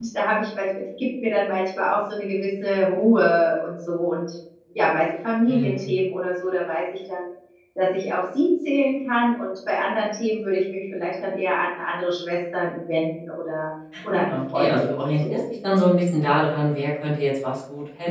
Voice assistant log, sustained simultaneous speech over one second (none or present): present